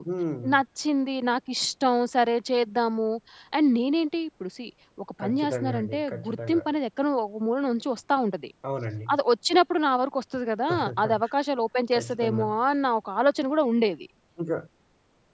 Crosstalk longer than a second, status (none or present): present